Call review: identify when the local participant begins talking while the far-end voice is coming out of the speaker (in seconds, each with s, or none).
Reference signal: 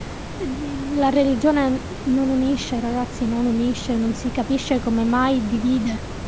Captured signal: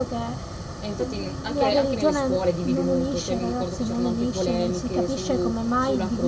0.8 s